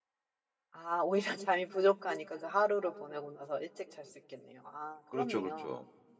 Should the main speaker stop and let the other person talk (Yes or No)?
Yes